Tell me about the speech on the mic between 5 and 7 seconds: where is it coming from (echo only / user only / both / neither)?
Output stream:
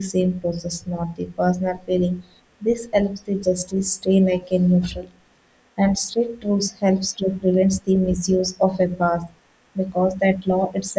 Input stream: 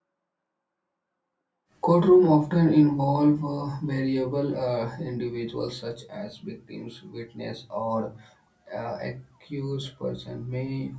user only